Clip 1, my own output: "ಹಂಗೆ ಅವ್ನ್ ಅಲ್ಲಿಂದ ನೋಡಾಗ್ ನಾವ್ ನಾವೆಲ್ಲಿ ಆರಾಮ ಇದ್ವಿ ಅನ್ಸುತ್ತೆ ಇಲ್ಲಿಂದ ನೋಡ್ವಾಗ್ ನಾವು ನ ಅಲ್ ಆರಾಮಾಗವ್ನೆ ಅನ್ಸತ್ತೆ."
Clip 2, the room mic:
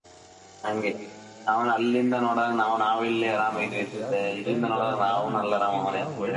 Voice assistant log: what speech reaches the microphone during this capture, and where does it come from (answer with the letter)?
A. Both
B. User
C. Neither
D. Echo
A